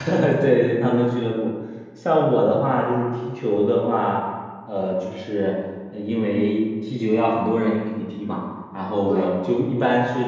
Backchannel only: Yes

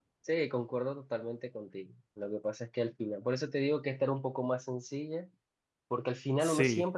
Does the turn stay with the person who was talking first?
Yes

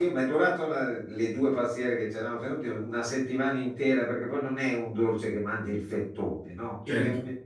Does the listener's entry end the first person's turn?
No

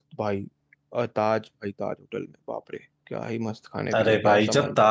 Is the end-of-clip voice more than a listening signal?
Yes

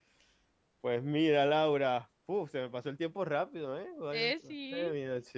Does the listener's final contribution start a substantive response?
No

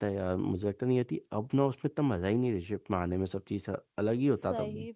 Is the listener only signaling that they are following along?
No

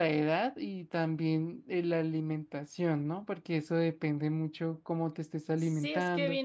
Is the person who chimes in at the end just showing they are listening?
No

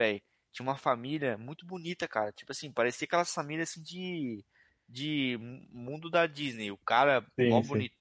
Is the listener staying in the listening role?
Yes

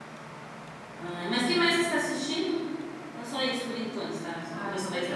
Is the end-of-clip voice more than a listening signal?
Yes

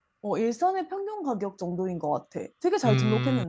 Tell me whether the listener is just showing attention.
No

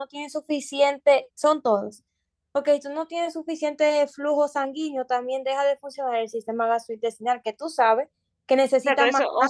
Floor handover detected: Yes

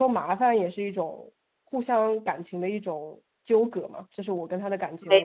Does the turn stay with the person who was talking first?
Yes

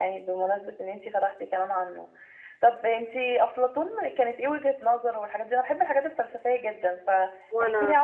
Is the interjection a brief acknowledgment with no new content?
Yes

